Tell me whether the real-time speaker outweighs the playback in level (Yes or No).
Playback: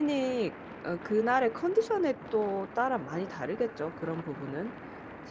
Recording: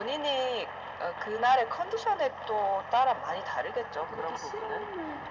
No